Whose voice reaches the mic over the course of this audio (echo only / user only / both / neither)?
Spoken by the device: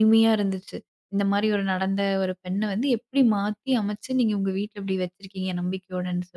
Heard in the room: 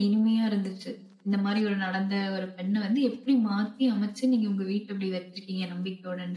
echo only